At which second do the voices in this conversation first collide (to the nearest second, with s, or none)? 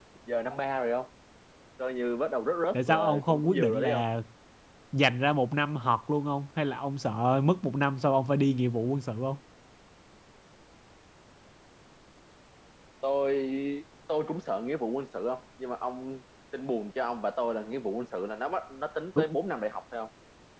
3 s